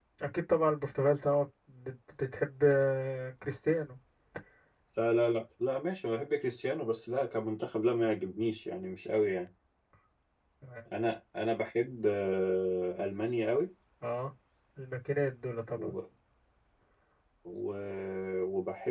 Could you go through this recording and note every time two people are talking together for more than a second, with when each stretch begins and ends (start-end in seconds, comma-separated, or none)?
none